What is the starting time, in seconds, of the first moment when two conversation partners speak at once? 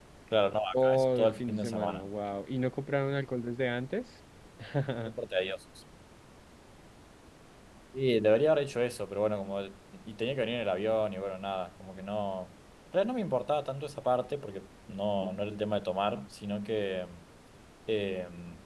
0.8 s

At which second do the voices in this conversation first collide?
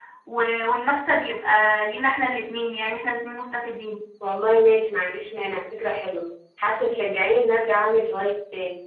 none

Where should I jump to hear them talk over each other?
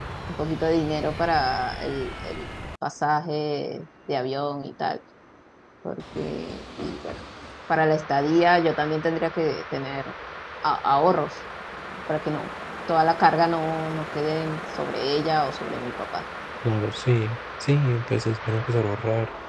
none

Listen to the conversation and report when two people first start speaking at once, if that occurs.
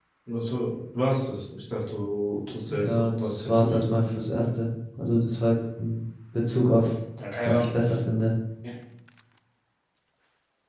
2.7 s

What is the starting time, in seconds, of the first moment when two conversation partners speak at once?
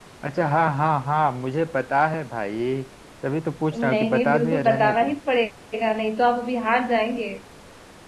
3.8 s

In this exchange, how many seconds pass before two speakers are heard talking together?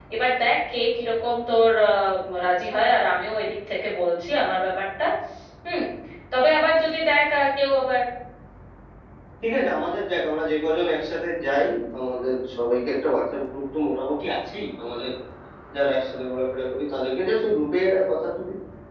none

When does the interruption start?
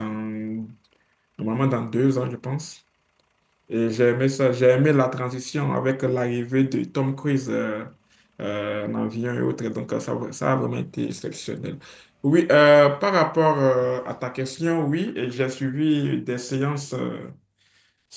none

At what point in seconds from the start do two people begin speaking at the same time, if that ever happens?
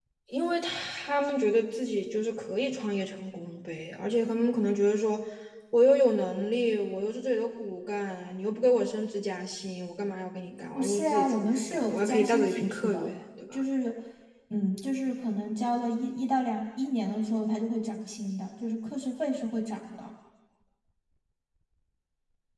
10.8 s

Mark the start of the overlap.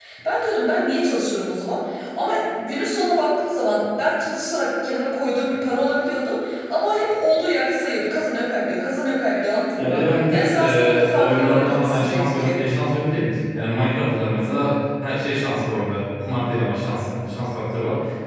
9.8 s

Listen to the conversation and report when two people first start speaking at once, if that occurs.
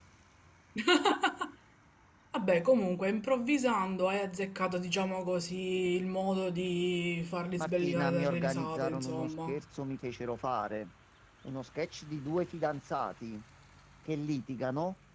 7.6 s

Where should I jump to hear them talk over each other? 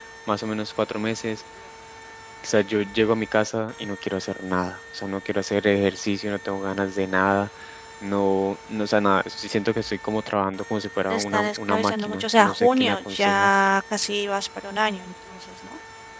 11.1 s

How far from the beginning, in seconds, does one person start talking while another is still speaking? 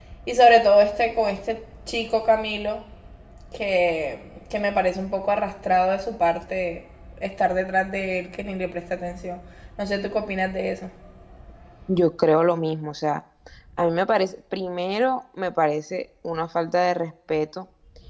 none

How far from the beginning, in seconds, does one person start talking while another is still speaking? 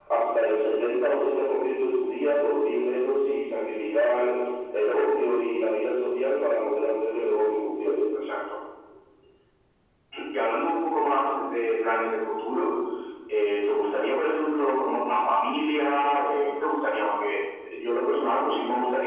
none

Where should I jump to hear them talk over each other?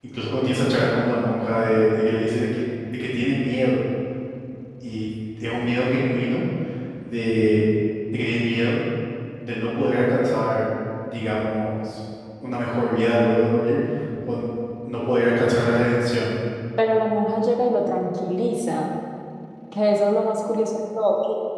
none

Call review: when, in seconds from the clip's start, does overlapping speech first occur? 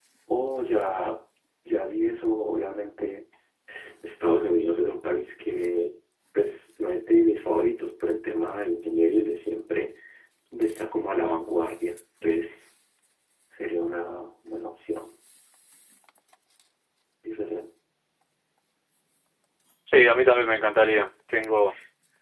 none

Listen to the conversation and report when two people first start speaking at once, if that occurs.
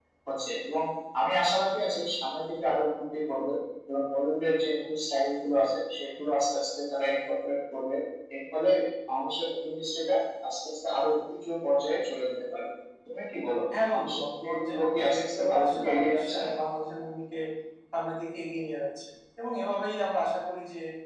13.7 s

